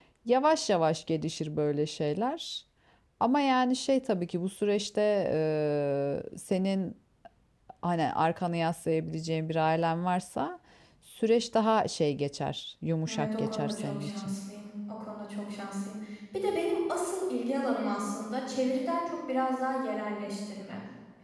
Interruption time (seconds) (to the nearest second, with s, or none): 13 s